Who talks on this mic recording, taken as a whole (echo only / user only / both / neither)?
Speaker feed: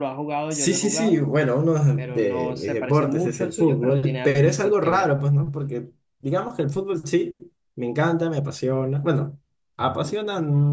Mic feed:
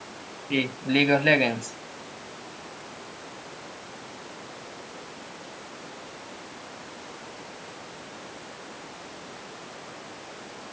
user only